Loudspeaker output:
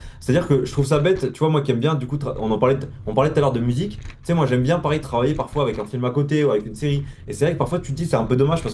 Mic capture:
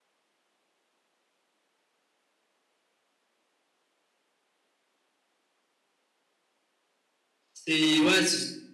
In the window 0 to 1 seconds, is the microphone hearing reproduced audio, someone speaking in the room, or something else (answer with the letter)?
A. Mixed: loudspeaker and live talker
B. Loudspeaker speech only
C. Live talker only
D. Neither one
D